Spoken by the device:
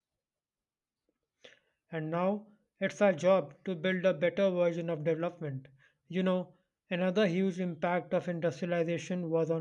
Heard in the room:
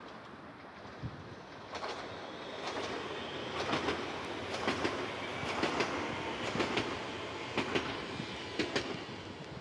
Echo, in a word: none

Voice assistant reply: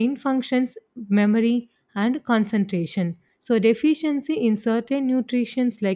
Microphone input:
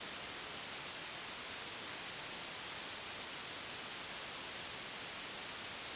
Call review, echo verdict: none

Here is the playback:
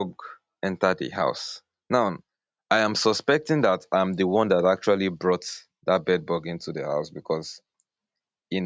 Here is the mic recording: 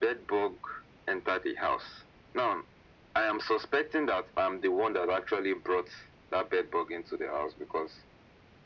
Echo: present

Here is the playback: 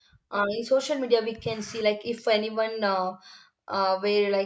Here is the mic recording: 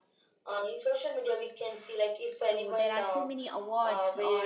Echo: present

